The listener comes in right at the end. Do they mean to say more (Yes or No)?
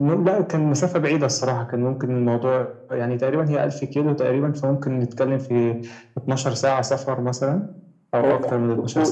Yes